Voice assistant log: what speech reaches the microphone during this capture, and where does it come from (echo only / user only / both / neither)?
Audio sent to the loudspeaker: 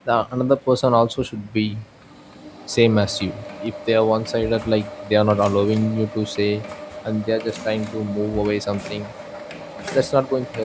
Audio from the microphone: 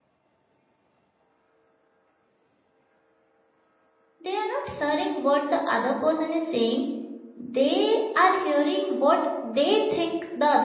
user only